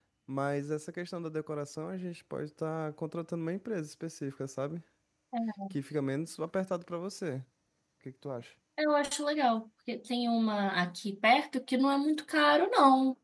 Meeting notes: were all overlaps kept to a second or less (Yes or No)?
Yes